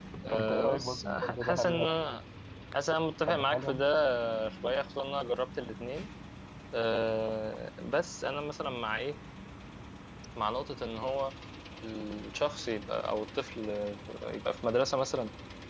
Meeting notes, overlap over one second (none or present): present